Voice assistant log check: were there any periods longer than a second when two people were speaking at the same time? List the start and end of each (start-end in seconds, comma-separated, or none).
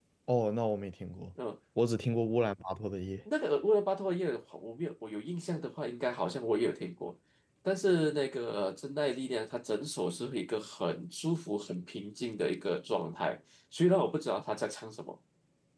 none